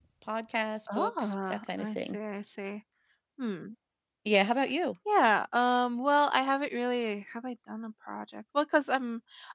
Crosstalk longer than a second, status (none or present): present